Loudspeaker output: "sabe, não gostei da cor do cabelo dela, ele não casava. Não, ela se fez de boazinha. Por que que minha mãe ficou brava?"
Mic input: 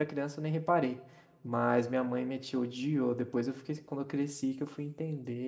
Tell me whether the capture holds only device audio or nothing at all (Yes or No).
No